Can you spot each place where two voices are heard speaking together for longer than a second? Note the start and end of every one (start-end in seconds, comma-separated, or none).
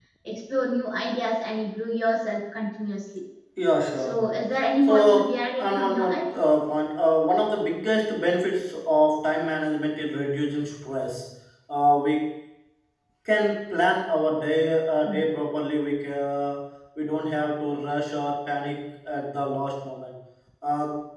4.8-6.3